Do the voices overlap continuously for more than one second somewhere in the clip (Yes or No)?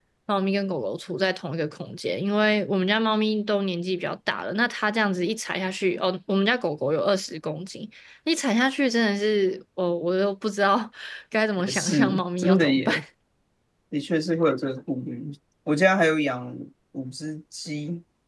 Yes